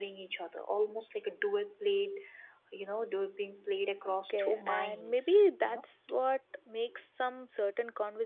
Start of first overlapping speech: 4.0 s

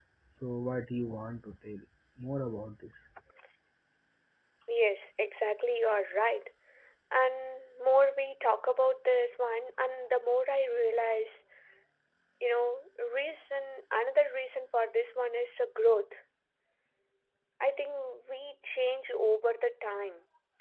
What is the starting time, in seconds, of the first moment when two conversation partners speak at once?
none

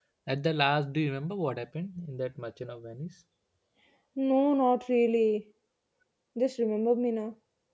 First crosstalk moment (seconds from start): none

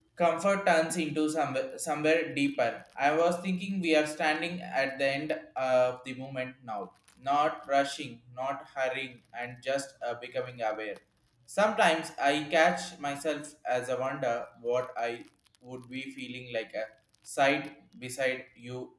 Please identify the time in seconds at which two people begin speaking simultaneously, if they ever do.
none

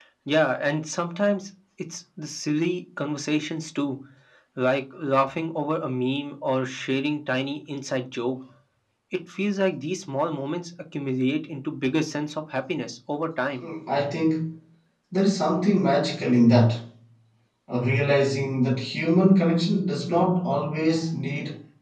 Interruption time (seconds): none

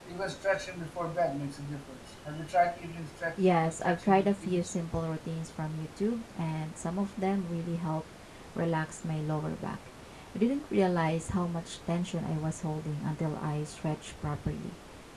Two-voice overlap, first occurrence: 3.4 s

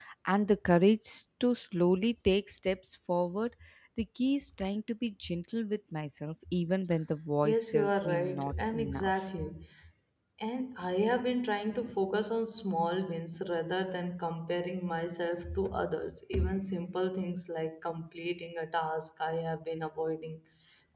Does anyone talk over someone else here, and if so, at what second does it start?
7.4 s

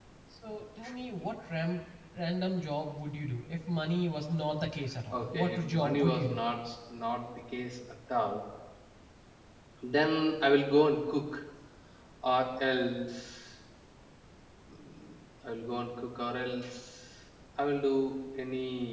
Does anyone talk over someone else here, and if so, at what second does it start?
5.1 s

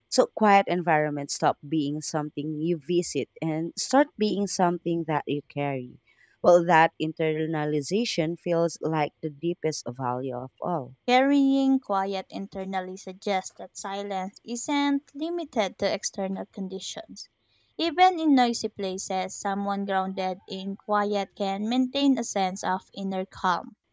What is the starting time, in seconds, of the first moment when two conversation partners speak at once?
none

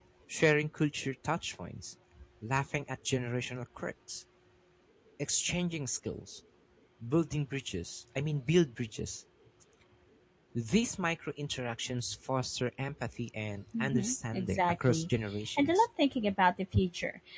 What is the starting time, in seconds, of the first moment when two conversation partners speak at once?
13.8 s

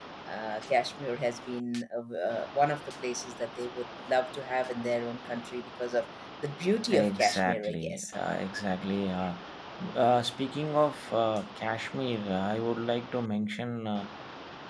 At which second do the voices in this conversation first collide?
6.9 s

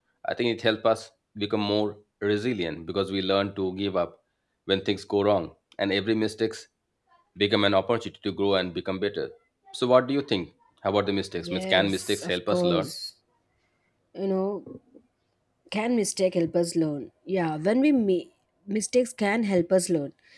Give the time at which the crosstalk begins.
11.3 s

